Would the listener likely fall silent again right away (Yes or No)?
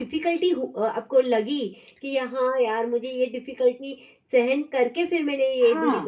No